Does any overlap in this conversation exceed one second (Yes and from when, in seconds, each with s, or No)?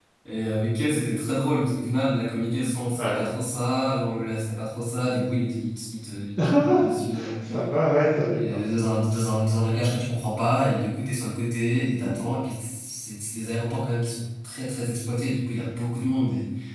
No